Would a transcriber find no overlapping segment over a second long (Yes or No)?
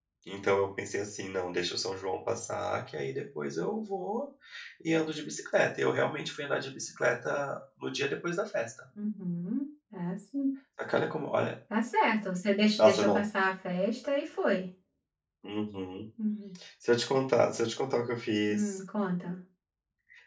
Yes